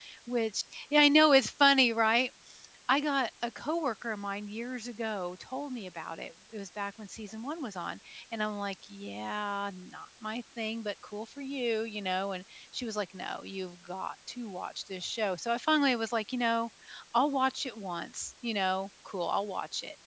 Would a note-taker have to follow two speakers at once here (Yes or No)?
No